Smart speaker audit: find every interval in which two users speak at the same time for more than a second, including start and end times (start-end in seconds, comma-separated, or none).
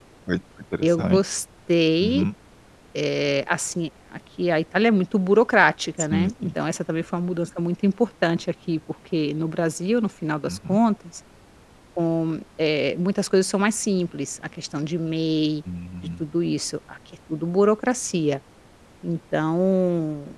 none